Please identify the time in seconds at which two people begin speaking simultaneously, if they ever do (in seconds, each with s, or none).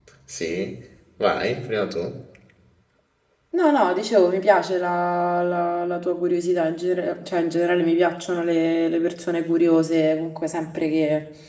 none